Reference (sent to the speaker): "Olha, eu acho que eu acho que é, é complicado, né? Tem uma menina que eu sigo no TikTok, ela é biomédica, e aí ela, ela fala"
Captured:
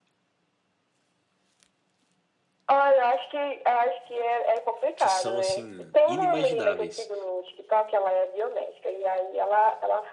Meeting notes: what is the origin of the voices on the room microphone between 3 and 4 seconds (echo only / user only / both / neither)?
echo only